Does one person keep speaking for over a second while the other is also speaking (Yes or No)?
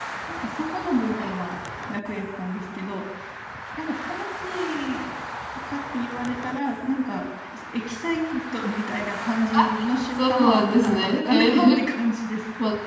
Yes